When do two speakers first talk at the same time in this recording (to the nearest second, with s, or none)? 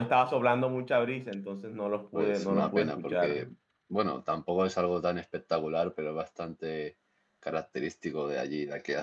2 s